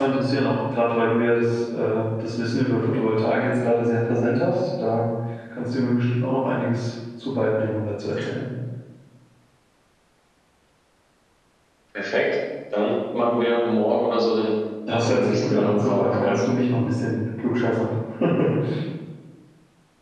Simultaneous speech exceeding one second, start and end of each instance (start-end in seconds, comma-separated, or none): 15.1-16.4